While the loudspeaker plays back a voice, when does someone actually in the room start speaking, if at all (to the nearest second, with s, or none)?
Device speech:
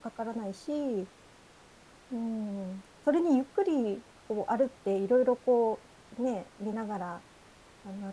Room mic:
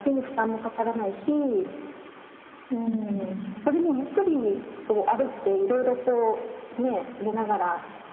3 s